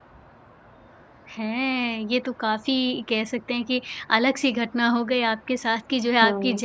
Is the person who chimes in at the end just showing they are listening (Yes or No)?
Yes